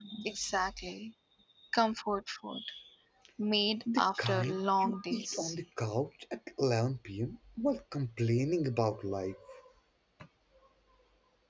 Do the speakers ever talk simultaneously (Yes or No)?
Yes